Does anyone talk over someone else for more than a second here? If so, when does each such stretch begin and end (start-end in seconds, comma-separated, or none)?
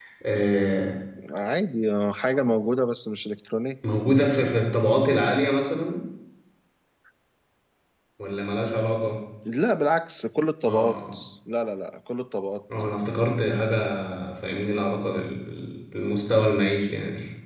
none